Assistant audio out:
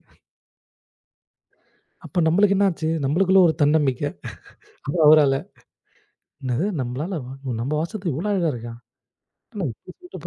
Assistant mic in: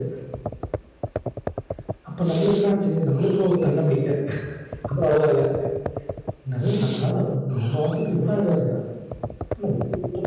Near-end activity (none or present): none